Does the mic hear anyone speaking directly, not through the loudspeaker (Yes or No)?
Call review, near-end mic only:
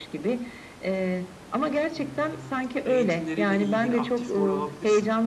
Yes